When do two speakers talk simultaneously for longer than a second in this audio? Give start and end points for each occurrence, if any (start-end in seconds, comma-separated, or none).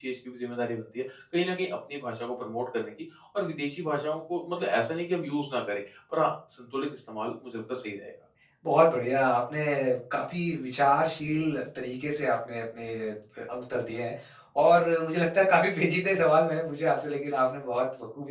none